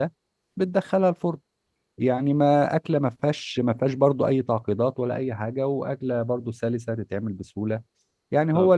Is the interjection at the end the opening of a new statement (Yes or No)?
No